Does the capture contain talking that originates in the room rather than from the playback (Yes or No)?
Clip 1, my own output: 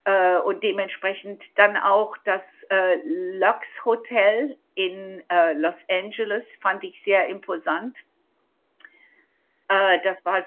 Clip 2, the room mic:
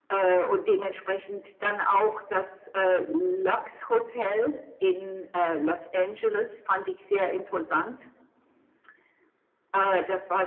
No